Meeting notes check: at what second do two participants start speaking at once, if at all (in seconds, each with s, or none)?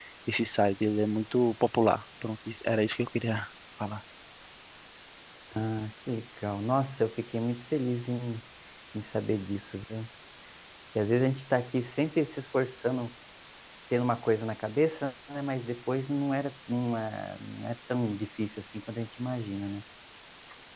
none